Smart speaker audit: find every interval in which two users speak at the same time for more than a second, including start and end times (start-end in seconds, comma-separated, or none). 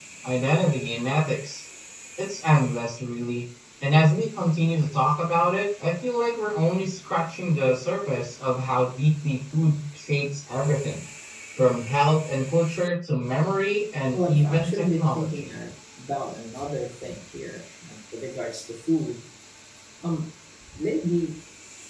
14.1-15.4